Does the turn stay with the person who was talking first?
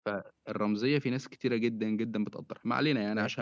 No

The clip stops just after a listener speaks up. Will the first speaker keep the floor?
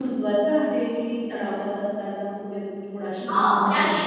No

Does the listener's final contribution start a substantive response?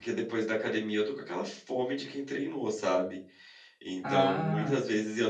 No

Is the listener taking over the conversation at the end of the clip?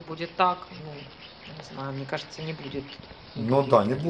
Yes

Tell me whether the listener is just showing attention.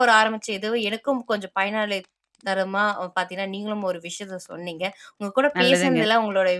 Yes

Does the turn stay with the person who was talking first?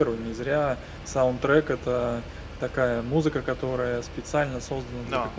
Yes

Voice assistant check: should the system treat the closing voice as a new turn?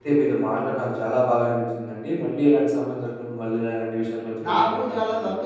Yes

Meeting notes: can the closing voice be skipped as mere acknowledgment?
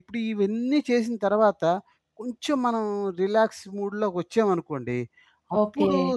Yes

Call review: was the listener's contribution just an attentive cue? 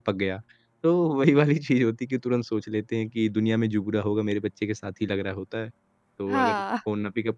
Yes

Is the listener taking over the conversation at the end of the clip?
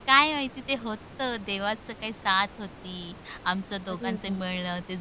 No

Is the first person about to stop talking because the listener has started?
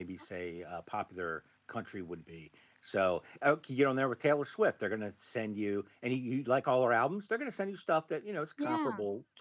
No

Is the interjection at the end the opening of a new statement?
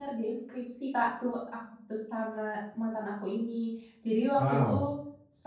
No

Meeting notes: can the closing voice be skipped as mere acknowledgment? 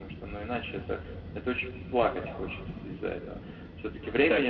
No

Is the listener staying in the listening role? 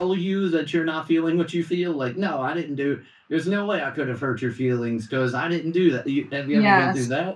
No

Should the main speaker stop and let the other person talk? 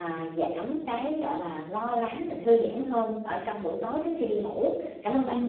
Yes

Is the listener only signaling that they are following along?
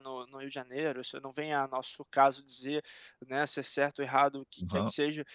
Yes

